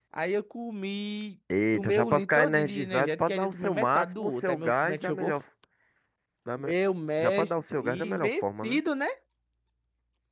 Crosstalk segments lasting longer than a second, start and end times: 1.7-5.4, 7.2-8.8

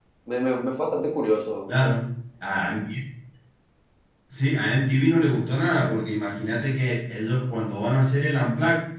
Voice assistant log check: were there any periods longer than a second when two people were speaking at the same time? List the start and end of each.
none

